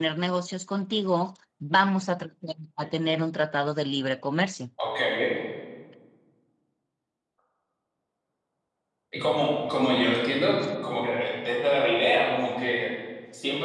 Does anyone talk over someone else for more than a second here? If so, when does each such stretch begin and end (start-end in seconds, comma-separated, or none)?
none